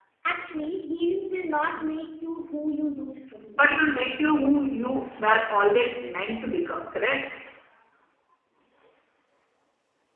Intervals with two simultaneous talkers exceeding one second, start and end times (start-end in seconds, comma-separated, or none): none